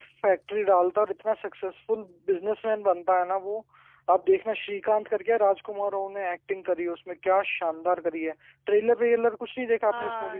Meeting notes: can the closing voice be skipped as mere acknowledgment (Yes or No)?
No